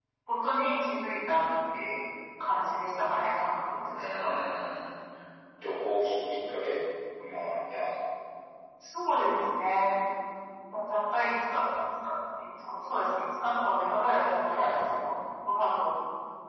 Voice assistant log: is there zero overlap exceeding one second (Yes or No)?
Yes